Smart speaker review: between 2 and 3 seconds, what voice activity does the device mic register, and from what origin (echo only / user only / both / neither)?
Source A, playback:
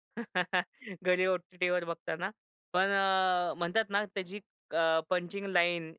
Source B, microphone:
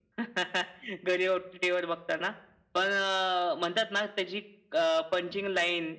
echo only